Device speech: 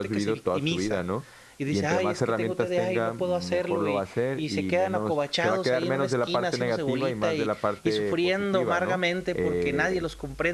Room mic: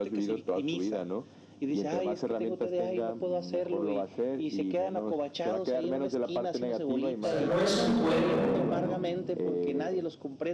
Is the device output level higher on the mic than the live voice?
No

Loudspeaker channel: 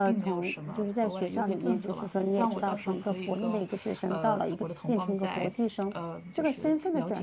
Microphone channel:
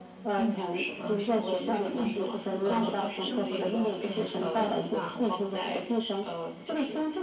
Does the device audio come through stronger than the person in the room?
Yes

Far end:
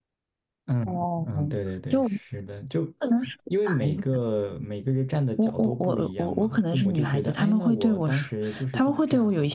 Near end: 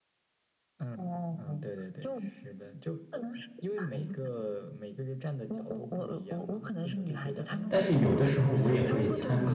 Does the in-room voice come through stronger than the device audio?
Yes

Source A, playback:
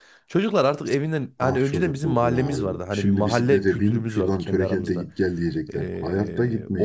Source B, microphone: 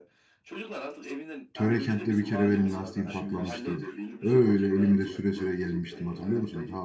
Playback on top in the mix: No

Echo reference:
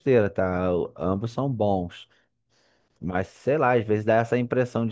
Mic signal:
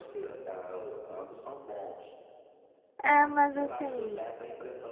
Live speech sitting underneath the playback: No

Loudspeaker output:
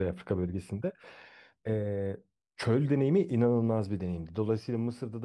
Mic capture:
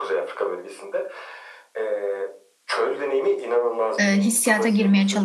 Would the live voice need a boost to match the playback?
No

